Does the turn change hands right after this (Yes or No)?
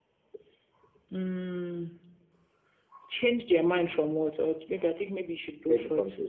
Yes